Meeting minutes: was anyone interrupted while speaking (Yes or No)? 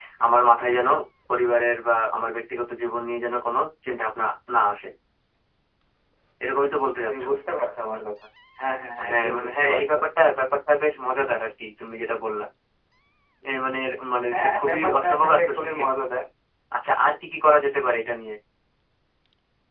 Yes